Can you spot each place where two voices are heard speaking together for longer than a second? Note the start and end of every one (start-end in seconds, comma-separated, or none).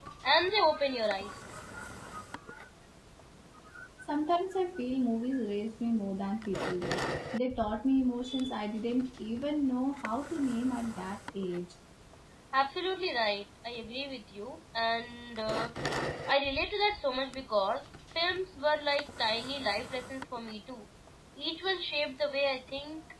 none